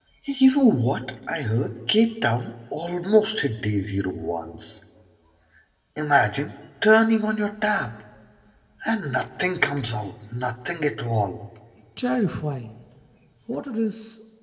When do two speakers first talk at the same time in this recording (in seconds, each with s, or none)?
none